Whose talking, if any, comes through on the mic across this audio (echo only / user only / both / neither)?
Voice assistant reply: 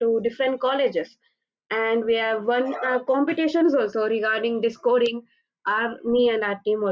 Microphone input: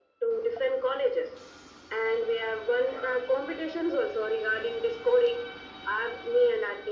echo only